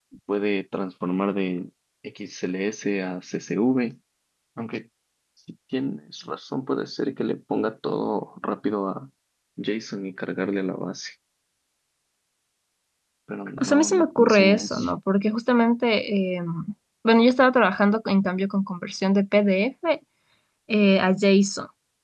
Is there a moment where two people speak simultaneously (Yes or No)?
Yes